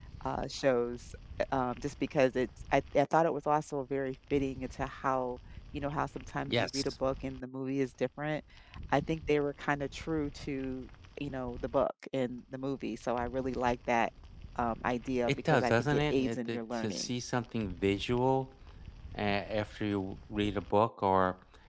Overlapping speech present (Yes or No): Yes